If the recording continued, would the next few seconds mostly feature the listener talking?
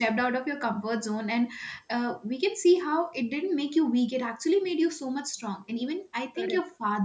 No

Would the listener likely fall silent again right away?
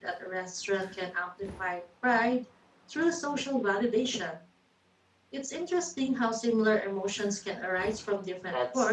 No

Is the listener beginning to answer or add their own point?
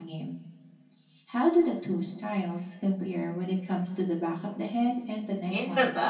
Yes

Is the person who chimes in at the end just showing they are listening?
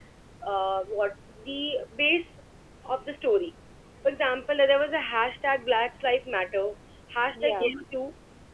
Yes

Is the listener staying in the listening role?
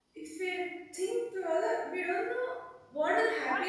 No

